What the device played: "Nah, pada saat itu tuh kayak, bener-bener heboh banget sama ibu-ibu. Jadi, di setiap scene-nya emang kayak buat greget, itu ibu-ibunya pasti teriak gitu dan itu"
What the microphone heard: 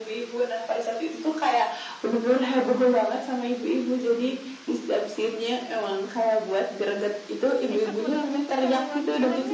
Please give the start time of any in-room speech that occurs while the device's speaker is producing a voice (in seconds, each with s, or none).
7.8 s